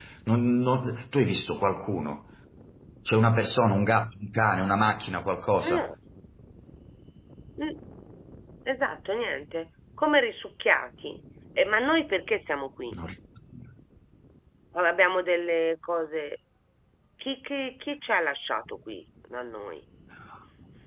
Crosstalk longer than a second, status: none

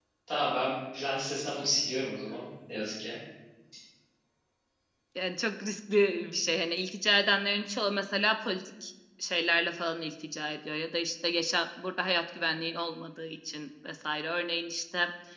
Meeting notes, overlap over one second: none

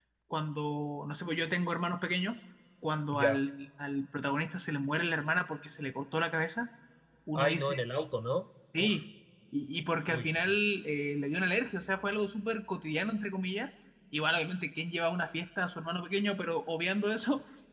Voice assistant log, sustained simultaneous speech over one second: none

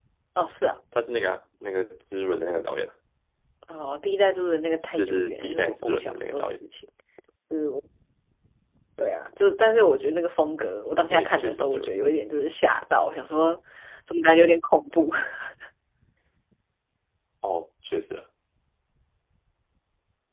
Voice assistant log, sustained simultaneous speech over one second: present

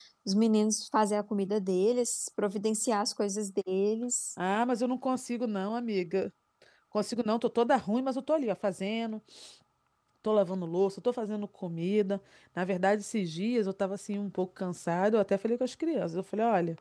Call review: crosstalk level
none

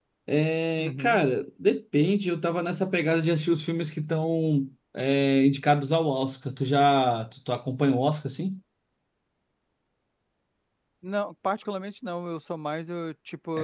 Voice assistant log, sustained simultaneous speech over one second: none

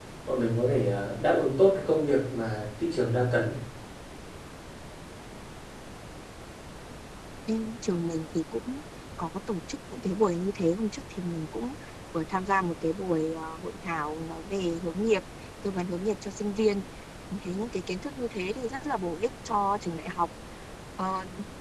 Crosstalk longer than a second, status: none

